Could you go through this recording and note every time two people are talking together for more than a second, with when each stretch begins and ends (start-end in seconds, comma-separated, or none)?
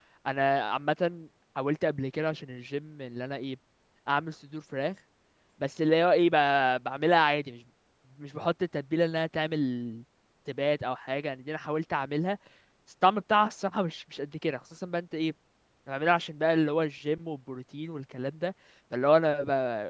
none